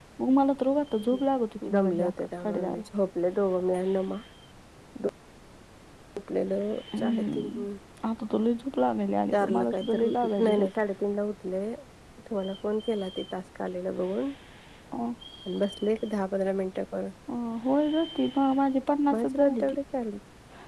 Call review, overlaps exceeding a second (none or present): present